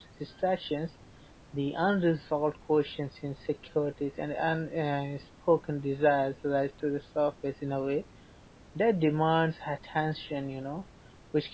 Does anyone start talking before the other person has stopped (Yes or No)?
No